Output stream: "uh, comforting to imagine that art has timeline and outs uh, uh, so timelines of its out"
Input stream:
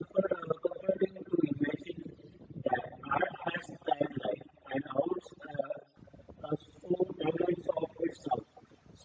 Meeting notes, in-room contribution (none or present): none